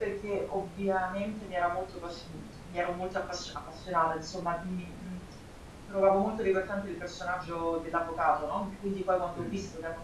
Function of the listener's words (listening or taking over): listening